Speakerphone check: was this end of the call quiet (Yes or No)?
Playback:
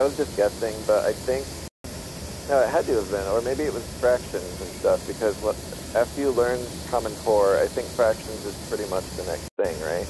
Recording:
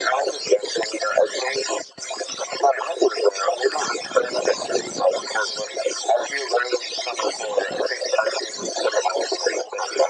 Yes